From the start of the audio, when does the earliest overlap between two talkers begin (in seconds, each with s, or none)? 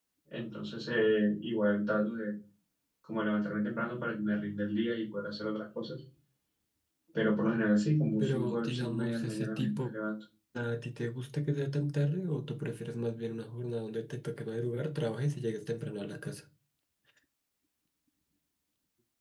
8.2 s